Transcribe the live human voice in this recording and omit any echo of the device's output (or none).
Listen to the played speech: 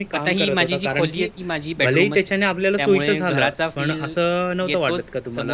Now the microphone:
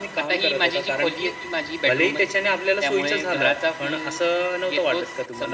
none